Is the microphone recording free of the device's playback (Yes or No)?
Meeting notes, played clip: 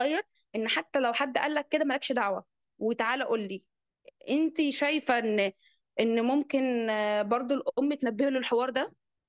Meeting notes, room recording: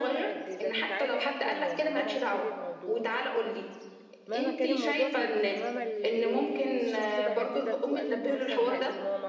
No